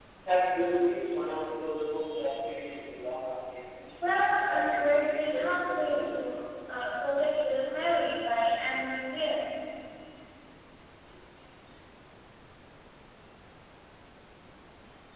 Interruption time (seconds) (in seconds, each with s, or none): 4.0 s